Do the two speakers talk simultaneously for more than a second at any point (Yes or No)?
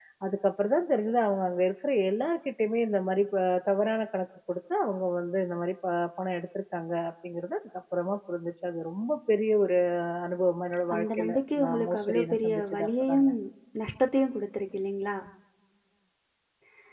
Yes